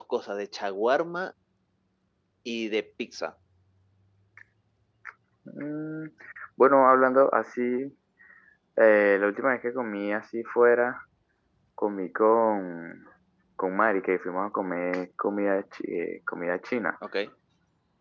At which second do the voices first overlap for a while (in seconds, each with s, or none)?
none